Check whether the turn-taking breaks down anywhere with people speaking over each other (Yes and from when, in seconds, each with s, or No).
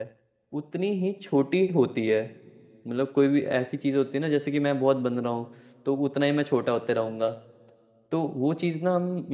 No